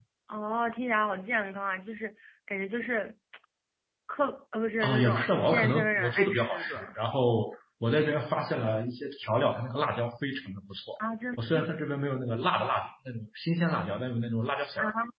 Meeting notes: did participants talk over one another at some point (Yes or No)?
Yes